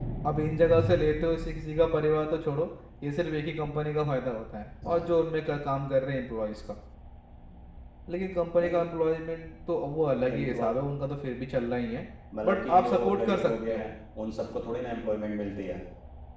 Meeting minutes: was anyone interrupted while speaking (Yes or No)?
Yes